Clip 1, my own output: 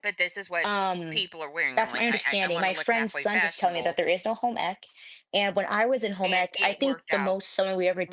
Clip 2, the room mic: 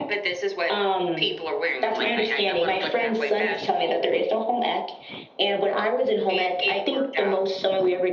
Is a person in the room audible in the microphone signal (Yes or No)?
No